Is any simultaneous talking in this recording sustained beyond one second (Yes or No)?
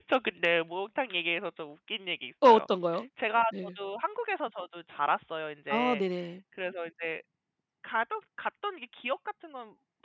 No